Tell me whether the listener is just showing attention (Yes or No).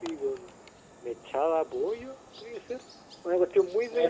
Yes